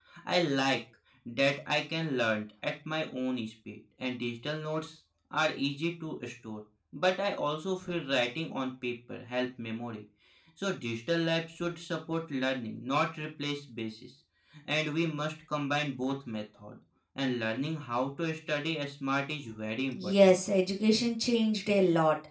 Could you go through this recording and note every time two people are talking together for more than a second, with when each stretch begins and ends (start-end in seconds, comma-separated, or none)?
none